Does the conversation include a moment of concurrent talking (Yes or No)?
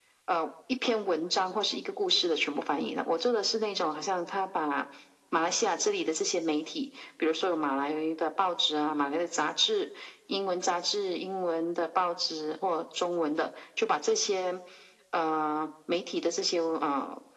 No